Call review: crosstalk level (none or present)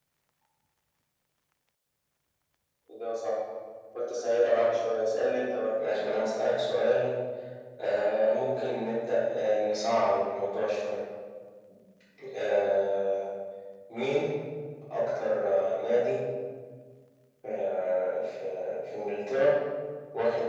none